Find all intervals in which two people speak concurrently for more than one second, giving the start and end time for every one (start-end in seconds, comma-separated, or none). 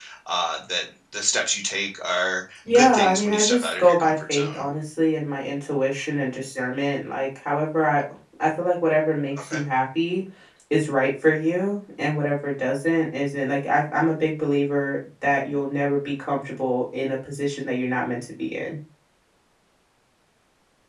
2.7-4.6